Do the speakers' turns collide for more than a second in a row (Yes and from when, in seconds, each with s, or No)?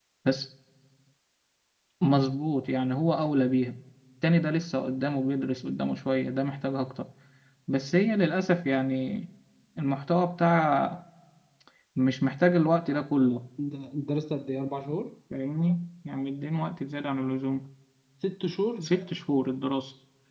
No